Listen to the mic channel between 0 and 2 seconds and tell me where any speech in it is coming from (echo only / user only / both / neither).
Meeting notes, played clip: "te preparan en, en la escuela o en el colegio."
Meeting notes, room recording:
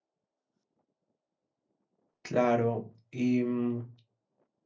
neither